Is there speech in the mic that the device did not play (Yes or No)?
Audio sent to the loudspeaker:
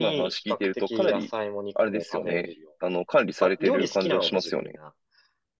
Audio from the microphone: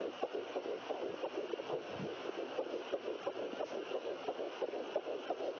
No